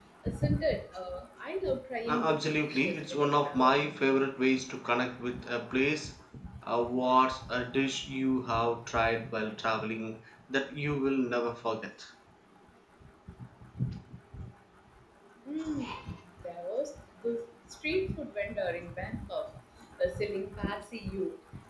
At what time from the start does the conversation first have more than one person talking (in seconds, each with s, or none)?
2.1 s